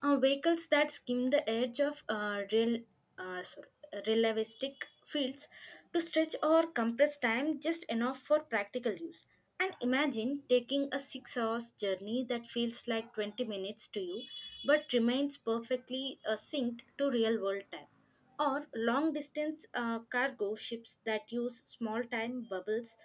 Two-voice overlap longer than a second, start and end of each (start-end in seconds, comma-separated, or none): none